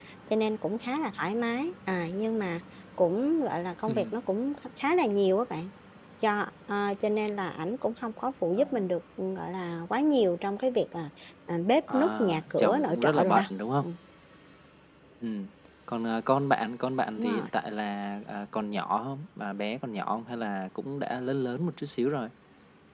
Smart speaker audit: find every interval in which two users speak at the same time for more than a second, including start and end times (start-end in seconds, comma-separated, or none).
11.9-13.4